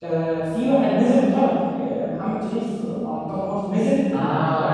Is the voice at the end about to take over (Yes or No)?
Yes